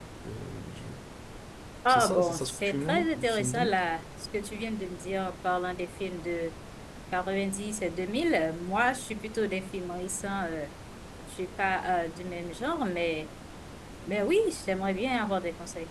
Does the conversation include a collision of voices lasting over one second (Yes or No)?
Yes